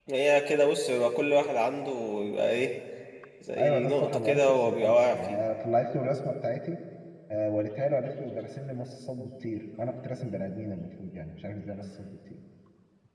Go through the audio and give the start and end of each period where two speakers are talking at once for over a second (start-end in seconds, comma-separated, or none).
3.6-5.4